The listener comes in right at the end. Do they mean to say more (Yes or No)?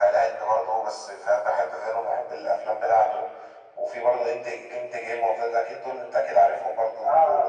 Yes